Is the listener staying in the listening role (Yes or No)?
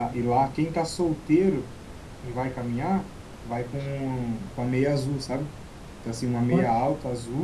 Yes